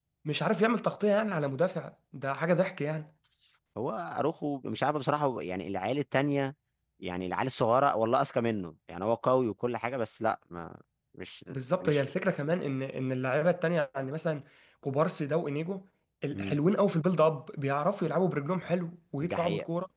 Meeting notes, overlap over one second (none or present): none